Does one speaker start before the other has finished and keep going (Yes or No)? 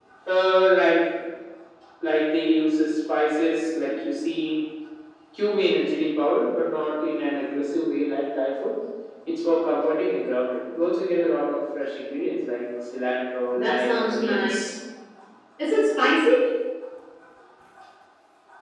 Yes